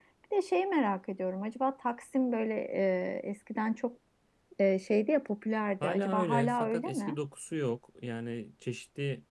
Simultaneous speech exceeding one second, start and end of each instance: 5.8-7.2

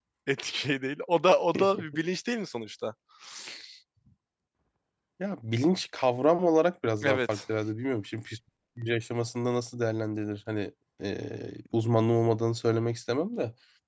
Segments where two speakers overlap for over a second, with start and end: none

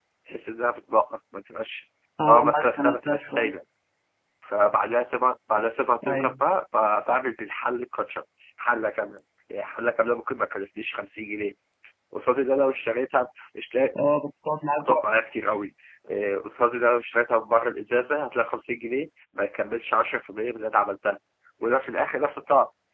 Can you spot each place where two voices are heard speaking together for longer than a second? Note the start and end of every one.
2.3-3.5

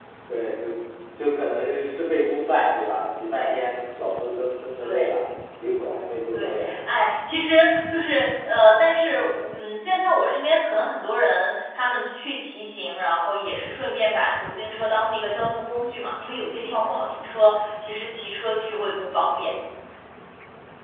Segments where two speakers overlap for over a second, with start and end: none

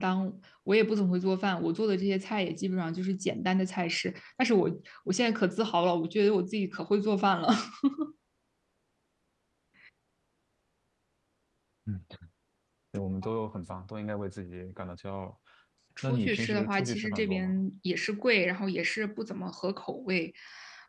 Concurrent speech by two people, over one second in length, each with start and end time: 16.0-17.5

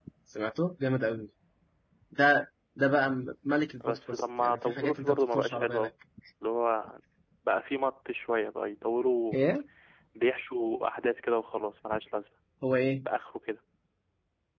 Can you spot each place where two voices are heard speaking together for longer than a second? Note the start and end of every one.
3.8-5.9

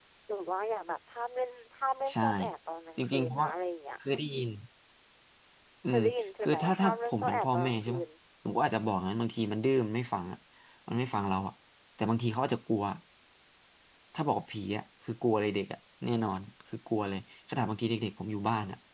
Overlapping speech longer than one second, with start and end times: 6.4-8.0

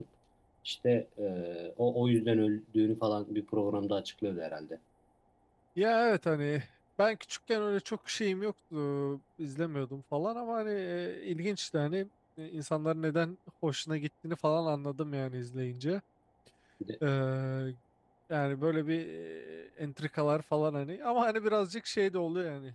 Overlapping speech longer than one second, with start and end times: none

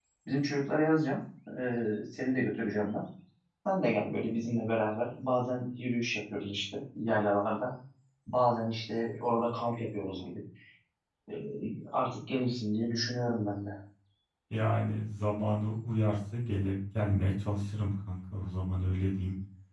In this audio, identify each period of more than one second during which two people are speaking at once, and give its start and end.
none

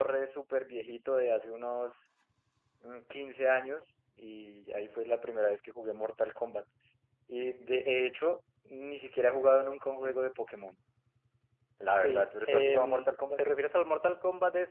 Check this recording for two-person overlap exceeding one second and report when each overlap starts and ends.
12.0-13.4

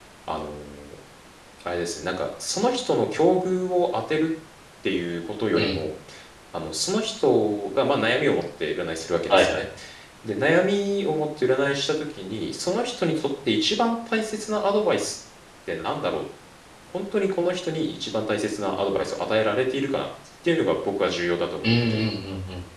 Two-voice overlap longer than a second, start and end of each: none

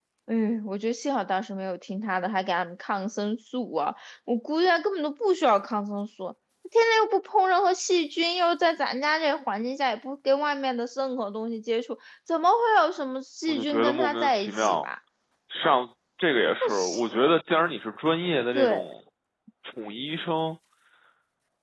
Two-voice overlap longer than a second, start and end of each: 13.5-14.8

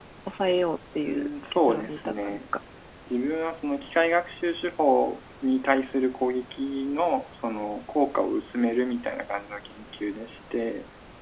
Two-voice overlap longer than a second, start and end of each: 1.1-2.4

